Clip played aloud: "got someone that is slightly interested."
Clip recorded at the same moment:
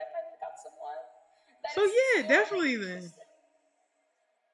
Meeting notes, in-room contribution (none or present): present